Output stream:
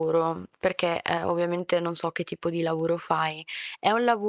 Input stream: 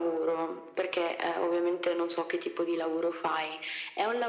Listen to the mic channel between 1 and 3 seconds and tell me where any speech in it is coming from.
echo only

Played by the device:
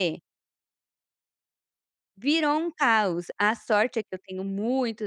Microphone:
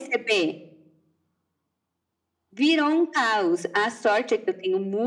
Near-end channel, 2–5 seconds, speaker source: echo only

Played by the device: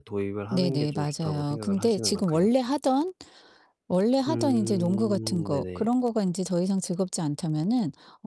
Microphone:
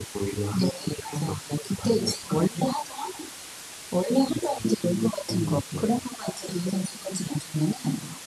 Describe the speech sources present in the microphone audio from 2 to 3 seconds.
echo only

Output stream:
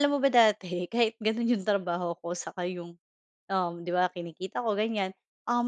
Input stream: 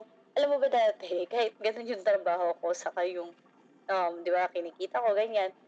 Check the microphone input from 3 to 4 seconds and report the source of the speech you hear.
echo only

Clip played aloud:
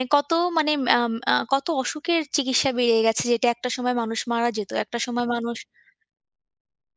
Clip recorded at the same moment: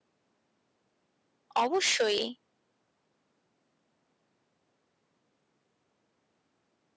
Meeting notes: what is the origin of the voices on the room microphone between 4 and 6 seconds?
neither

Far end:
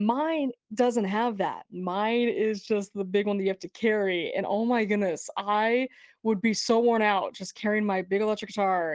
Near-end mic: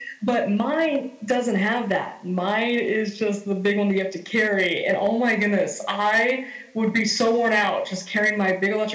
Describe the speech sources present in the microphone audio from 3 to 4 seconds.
echo only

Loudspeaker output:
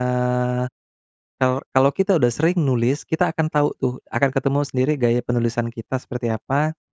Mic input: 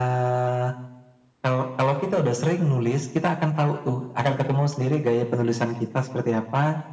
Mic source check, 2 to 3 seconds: echo only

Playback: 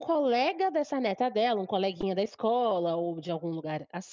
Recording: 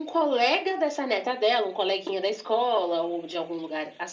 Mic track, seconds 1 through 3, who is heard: echo only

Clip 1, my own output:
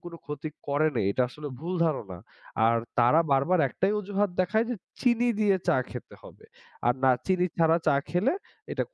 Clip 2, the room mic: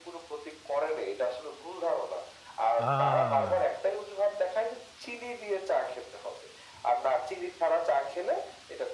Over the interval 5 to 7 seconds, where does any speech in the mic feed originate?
echo only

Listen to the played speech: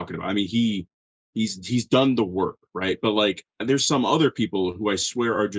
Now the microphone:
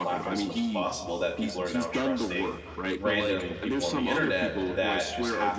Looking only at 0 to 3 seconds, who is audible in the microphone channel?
both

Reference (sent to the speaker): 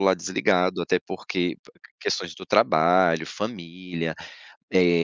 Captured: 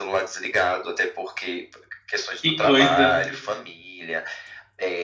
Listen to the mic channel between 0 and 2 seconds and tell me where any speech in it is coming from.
echo only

